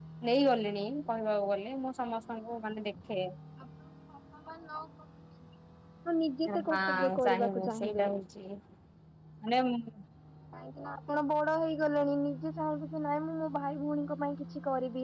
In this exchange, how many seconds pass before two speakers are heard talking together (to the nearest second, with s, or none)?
6 s